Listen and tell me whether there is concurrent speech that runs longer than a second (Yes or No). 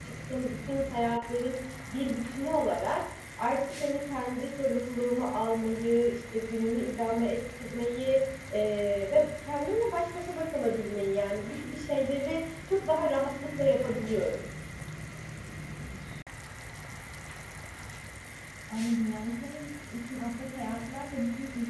No